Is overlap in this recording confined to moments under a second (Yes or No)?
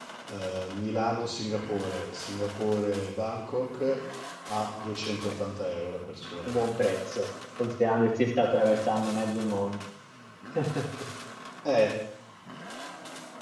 Yes